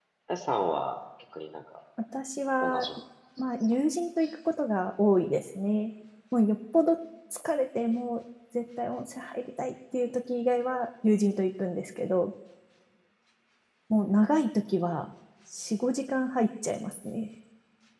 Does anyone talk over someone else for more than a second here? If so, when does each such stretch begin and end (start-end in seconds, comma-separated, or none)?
none